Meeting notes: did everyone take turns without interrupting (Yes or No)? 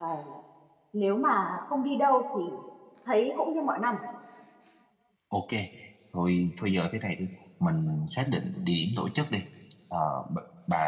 Yes